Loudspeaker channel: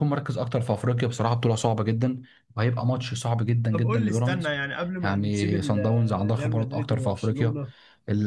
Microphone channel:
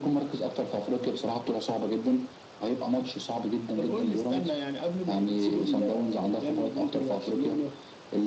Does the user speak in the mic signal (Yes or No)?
No